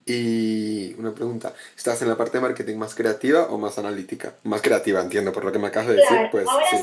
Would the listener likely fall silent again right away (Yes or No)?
No